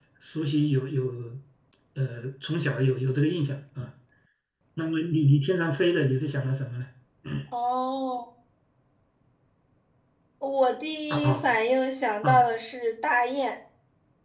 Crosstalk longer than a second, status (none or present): none